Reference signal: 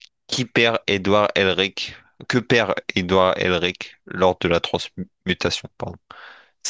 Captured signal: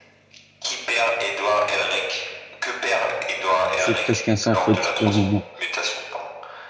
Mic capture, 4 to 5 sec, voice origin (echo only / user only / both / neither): both